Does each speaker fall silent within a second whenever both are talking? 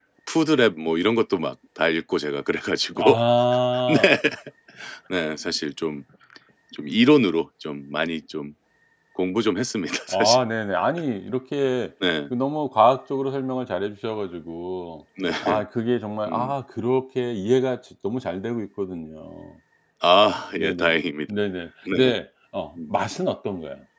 Yes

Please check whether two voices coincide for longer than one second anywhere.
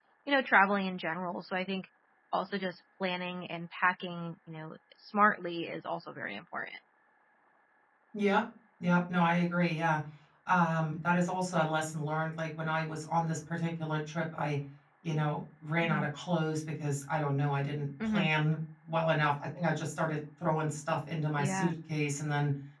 No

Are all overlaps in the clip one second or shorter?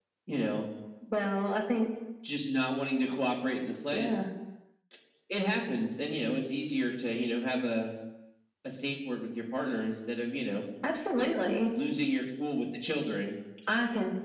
Yes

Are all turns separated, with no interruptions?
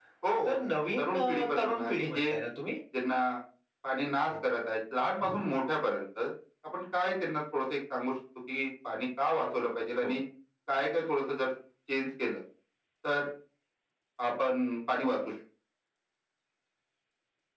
No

